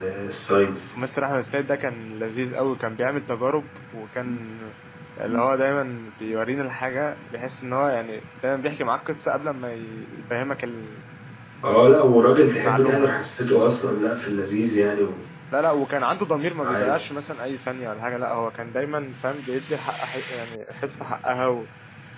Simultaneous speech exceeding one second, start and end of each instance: none

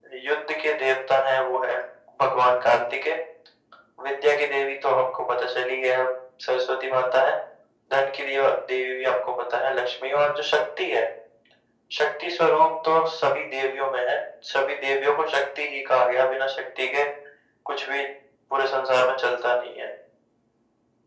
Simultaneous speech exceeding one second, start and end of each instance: none

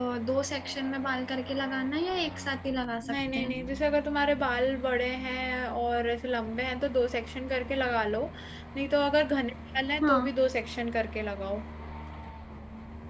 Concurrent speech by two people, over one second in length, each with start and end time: none

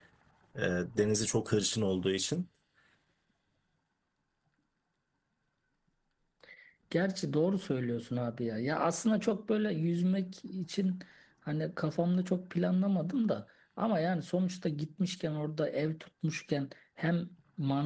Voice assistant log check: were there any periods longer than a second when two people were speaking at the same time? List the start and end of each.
none

